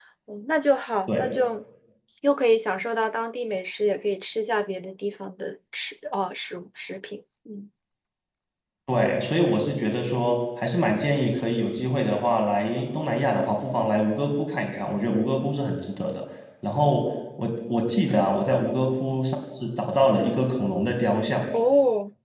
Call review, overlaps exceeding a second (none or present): none